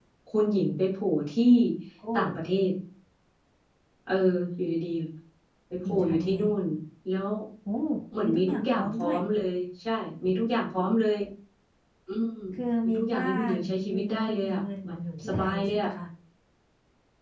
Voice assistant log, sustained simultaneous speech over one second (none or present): present